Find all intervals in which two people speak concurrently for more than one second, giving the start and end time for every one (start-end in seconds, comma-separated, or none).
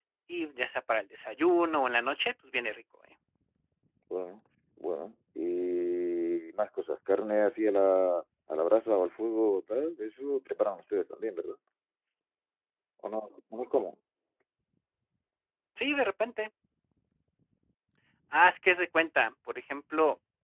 none